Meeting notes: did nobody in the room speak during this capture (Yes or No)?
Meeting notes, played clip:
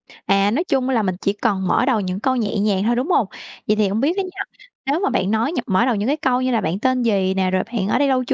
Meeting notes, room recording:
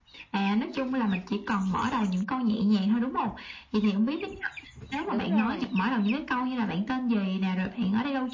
No